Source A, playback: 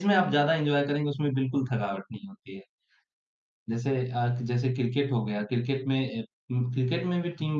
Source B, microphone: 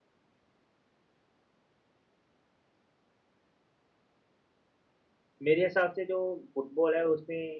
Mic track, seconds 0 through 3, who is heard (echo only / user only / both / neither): neither